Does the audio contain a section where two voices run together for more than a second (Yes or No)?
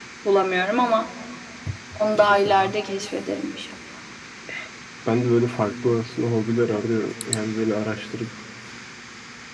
No